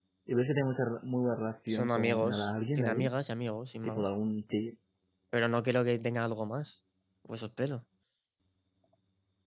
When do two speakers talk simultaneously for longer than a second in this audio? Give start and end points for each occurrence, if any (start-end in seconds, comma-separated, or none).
1.7-3.1